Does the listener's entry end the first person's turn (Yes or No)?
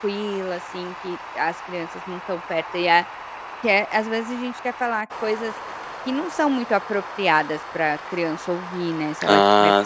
Yes